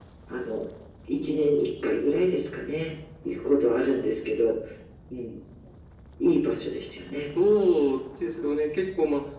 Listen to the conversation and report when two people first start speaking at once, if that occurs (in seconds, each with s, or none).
none